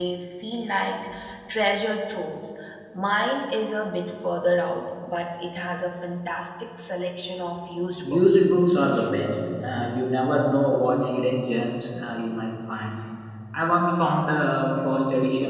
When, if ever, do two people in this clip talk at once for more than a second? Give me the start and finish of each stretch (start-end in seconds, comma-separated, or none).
none